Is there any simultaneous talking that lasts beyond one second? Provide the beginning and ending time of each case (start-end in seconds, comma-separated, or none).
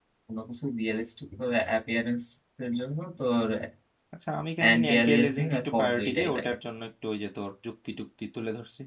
4.6-6.5